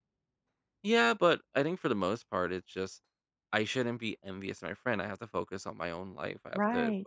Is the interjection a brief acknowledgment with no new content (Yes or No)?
No